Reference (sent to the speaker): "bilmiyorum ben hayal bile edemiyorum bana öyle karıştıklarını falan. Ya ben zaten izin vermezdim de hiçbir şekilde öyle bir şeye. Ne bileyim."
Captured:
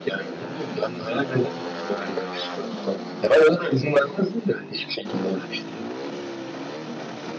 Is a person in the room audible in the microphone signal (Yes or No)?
No